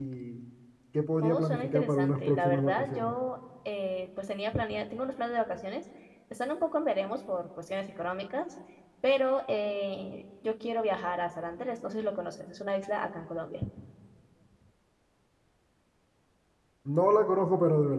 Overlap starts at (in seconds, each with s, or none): 1.2 s